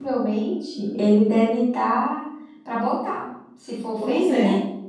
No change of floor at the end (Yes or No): No